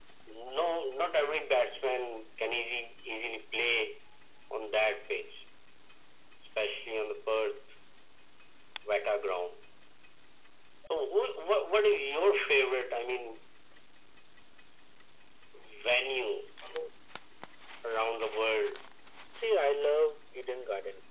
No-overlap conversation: Yes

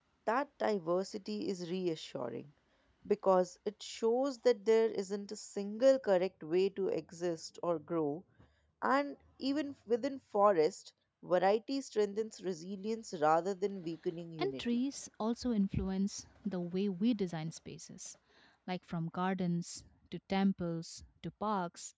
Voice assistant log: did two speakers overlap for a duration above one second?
No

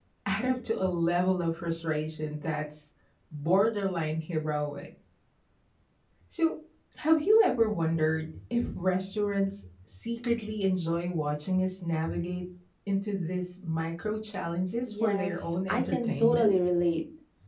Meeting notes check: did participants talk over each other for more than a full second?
Yes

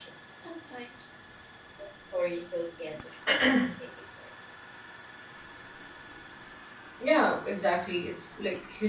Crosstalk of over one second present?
No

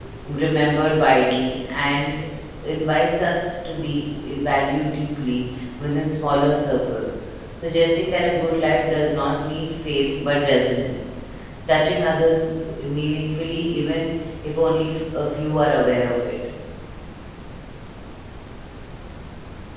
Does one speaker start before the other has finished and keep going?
No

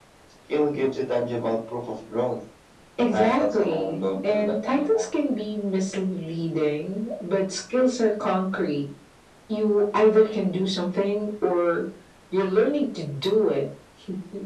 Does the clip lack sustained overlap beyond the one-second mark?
No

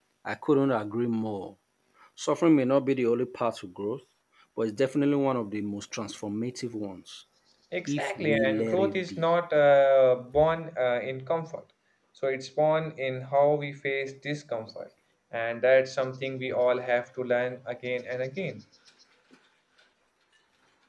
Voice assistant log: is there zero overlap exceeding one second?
No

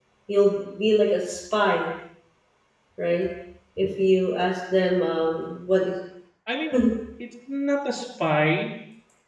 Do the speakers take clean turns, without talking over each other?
Yes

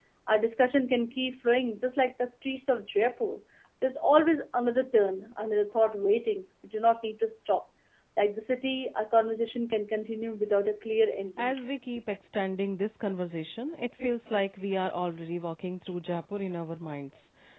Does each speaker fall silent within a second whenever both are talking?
Yes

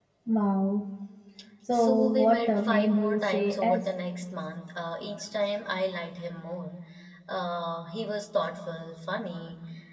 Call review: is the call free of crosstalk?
No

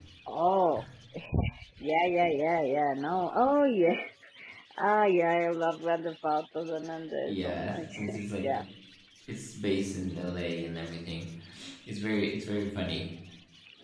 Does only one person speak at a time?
No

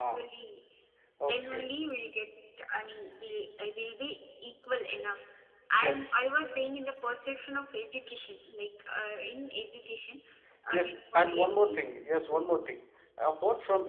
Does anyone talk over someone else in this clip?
Yes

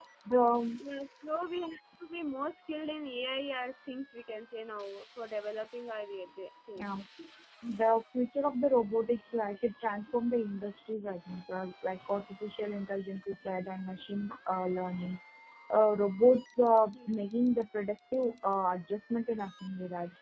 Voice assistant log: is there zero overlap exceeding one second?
Yes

